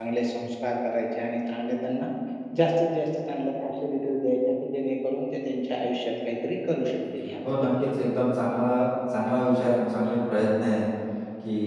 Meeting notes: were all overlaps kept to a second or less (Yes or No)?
Yes